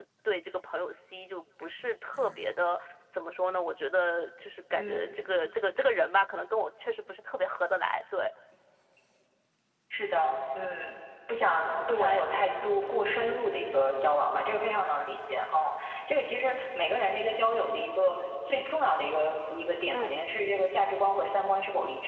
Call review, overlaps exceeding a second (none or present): none